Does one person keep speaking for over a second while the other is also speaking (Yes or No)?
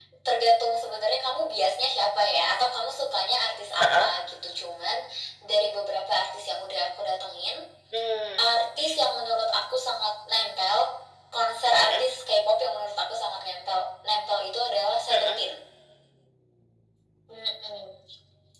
No